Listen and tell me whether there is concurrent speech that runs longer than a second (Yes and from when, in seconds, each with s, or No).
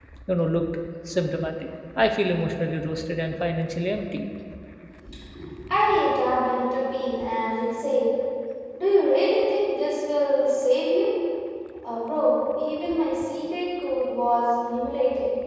No